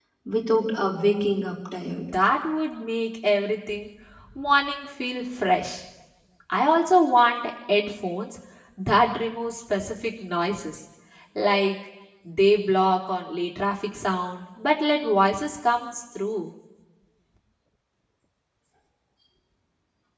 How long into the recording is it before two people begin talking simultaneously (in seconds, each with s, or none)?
none